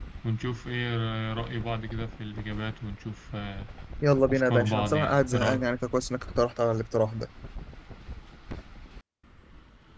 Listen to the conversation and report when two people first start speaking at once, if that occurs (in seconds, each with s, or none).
4.3 s